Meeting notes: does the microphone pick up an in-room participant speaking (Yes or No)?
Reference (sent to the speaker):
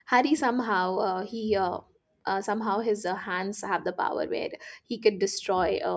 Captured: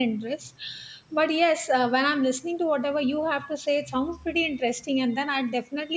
Yes